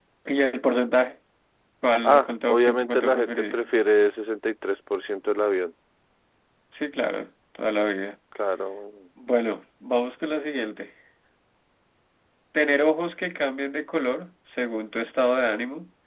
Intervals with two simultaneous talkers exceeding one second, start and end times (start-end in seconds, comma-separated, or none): 2.0-3.6